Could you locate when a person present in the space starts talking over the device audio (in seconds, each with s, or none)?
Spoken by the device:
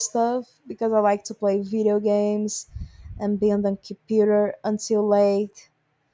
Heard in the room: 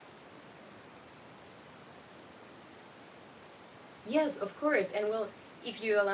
4.0 s